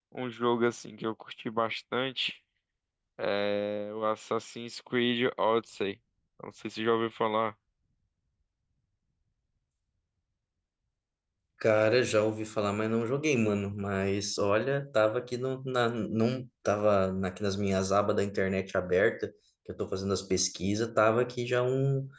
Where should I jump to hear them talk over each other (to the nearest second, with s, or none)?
none